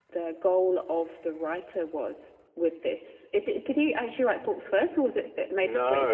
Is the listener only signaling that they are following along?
No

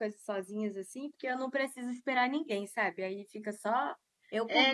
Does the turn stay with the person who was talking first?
No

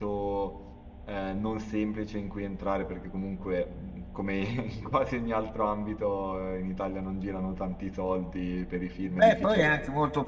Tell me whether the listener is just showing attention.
No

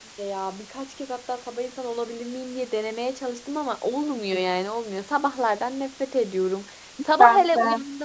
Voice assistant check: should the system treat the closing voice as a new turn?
No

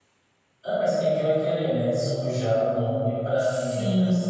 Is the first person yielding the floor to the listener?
Yes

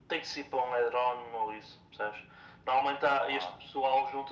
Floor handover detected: No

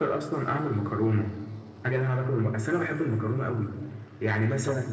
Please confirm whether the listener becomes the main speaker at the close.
No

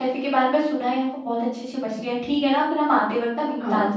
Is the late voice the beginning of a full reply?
No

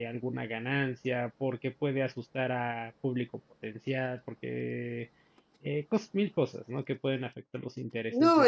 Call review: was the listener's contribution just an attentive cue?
No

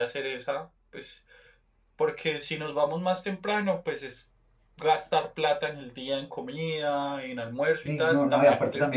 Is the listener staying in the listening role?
No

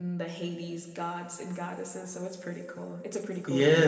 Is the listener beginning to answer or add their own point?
Yes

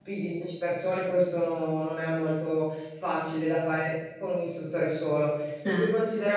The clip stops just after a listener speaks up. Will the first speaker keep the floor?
Yes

